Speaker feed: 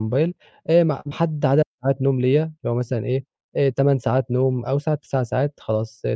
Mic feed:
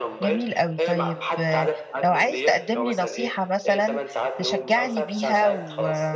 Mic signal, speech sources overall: both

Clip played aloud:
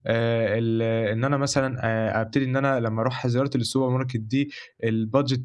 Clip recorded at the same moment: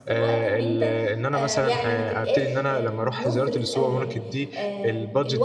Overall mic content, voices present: both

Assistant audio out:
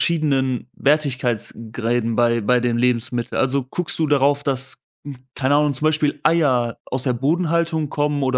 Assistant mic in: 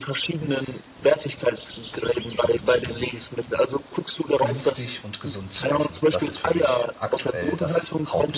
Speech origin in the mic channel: both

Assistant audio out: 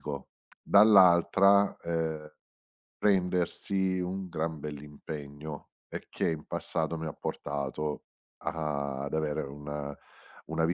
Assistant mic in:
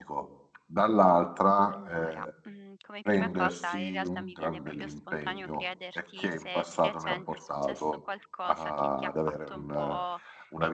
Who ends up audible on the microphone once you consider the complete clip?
both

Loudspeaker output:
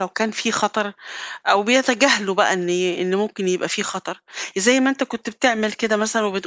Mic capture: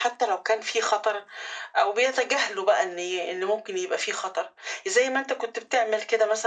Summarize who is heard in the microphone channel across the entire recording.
echo only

